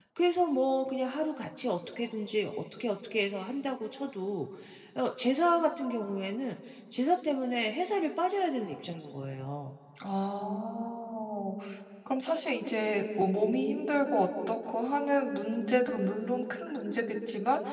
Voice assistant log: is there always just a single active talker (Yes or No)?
Yes